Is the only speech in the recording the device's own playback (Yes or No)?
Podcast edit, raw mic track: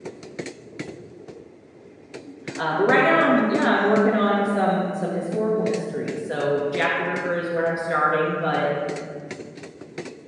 No